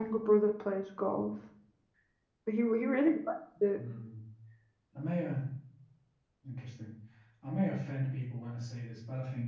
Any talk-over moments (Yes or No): No